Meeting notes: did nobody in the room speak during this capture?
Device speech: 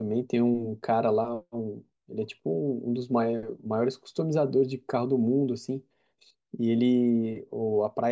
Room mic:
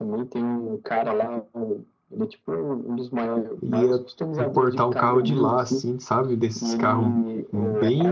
No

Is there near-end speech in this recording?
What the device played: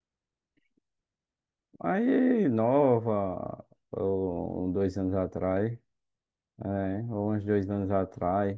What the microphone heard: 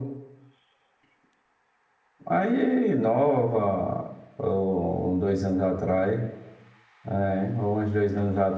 No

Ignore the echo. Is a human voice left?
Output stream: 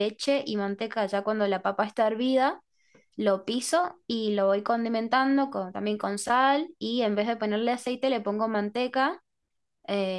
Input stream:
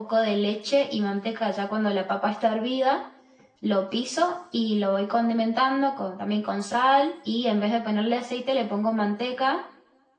No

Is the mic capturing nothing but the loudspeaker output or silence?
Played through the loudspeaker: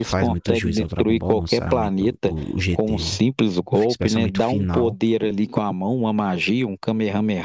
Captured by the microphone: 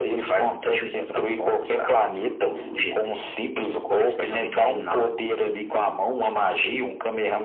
Yes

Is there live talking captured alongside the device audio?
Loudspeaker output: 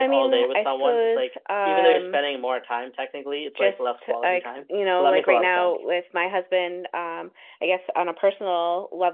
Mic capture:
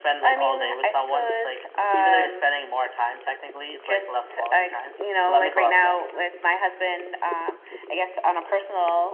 No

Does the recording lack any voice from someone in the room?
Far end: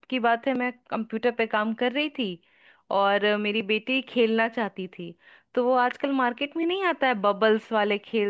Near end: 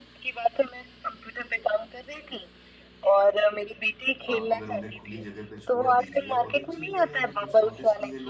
No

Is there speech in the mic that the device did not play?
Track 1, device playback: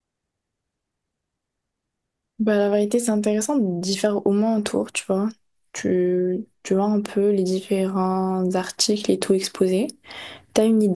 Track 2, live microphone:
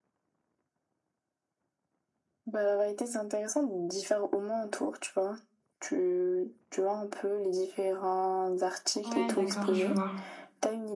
Yes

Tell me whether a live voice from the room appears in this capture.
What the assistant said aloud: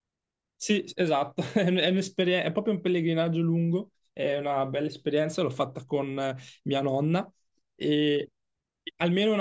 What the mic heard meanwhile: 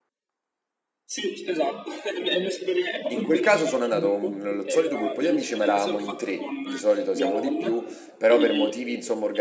Yes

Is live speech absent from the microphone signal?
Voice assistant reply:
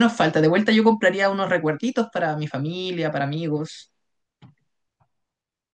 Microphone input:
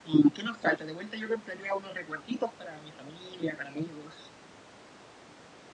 Yes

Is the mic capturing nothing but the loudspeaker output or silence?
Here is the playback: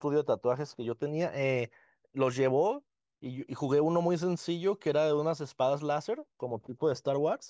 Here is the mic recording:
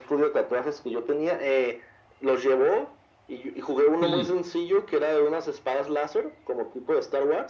No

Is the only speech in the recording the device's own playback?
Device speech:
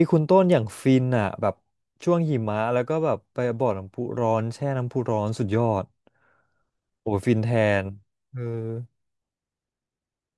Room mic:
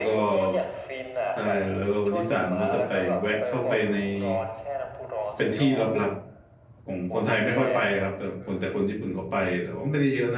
No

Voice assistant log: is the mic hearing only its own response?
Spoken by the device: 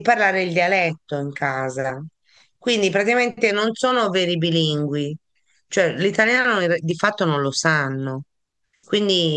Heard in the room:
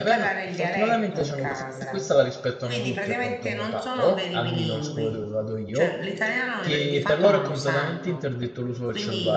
No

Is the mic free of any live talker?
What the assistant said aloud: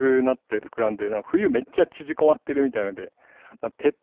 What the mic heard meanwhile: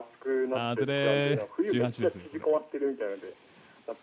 No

